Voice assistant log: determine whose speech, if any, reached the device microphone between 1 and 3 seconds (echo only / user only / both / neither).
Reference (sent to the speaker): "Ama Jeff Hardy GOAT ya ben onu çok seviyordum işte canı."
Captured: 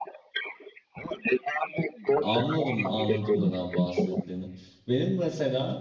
both